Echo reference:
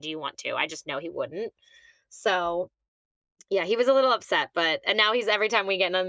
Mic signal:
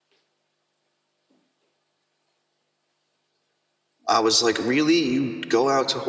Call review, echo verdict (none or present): none